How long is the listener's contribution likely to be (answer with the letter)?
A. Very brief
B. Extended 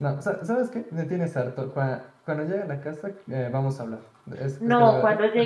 B